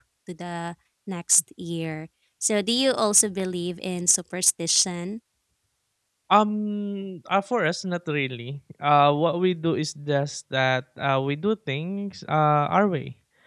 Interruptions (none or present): none